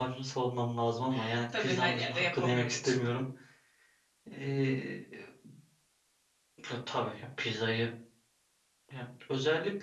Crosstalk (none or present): present